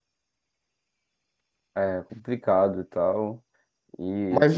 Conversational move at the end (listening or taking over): taking over